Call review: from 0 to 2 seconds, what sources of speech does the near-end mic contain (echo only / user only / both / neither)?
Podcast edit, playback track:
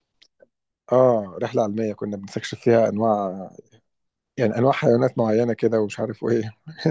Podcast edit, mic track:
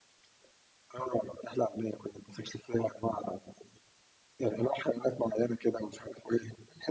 echo only